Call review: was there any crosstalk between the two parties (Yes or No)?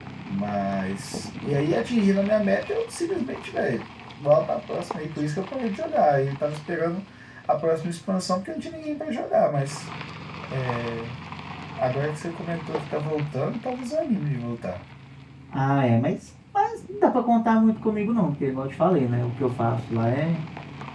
No